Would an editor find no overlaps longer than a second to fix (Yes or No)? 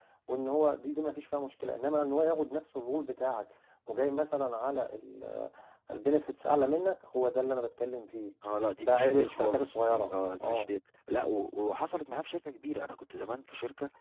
No